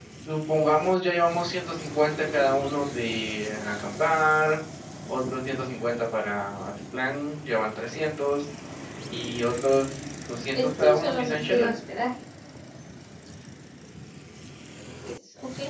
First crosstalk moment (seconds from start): 10.5 s

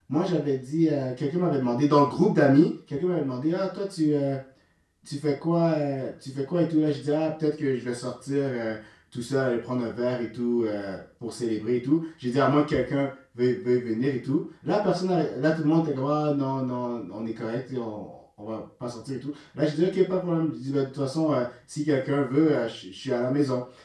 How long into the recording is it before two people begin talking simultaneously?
none

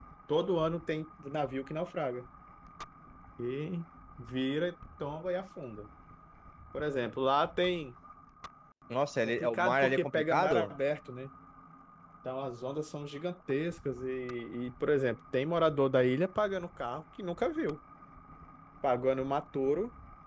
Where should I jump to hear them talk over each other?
9.2 s

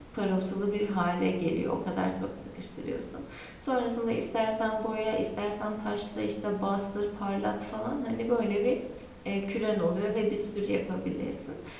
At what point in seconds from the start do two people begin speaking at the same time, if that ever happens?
none

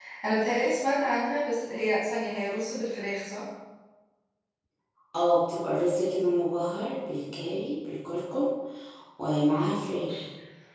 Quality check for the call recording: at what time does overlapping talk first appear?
none

